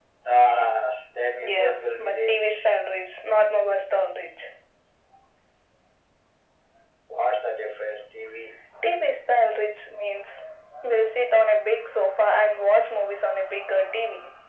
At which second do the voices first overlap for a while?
1 s

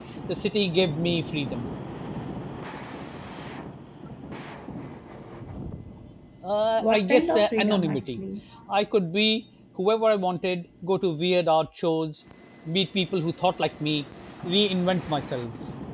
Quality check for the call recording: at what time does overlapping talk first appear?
7 s

